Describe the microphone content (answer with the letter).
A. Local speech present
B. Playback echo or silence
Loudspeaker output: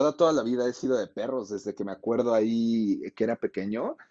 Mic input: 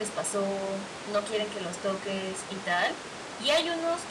A